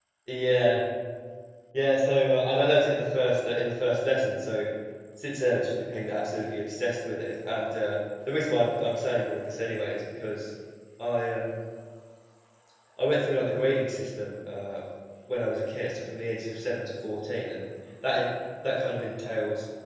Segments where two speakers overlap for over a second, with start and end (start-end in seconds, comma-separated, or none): none